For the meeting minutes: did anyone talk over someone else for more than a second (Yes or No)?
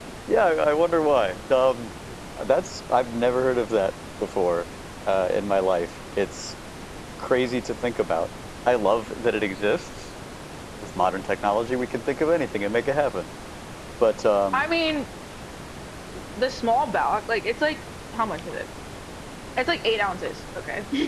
No